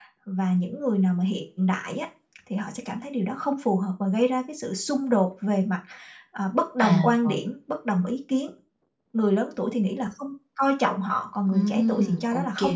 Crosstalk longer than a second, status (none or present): present